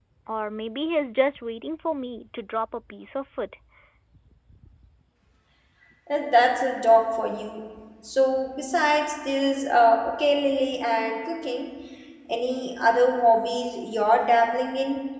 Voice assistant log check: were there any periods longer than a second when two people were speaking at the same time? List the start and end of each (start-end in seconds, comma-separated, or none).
none